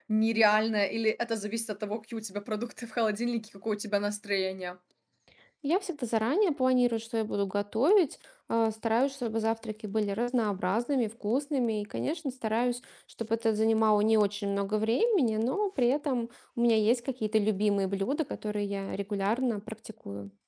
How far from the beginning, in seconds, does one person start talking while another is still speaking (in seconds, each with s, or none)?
none